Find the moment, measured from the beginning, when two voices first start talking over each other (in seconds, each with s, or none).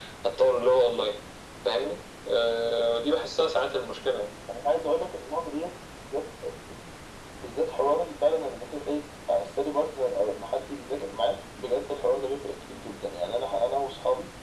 none